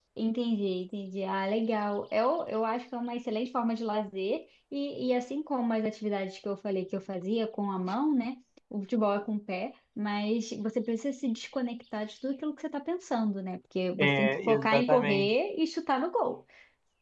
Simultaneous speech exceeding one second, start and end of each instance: 14.0-15.3

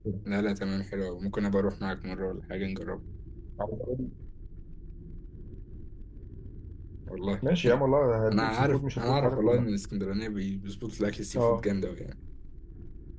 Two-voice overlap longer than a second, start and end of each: 8.3-9.7

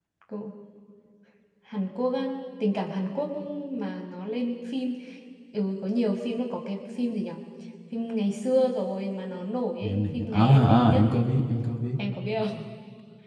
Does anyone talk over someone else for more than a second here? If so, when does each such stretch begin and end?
9.8-11.0

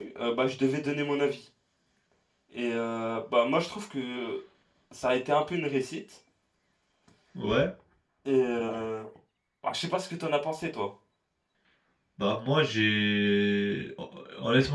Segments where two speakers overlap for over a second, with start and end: none

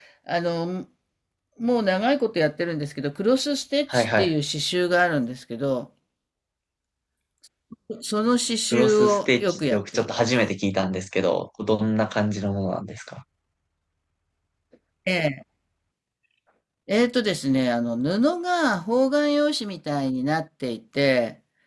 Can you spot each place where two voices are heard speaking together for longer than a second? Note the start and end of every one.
8.7-10.3

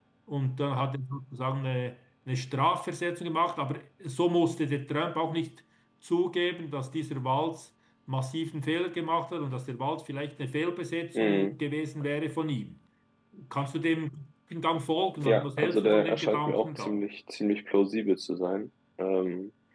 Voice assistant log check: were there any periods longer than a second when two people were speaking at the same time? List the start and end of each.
15.2-17.0

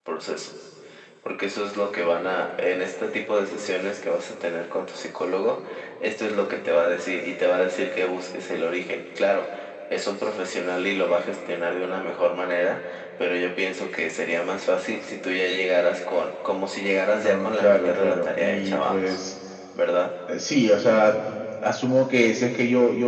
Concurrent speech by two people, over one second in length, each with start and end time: 17.2-19.2

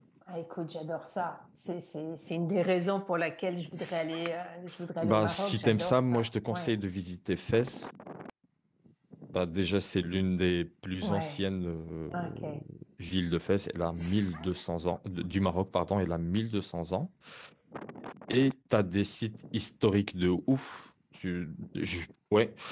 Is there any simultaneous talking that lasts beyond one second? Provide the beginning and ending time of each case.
5.0-6.7

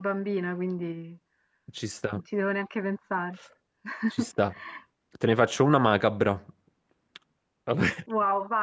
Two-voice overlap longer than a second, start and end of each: none

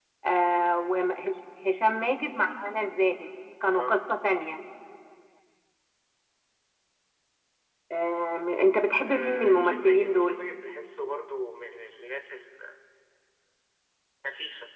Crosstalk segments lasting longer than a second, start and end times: 9.1-10.4

